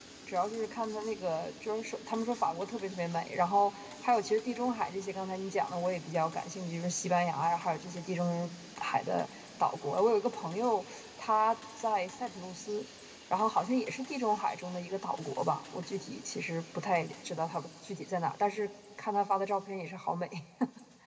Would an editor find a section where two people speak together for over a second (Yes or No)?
No